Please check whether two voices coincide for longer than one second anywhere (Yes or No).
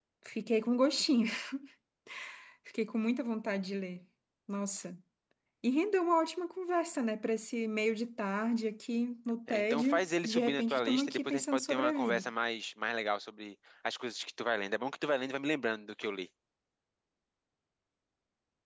Yes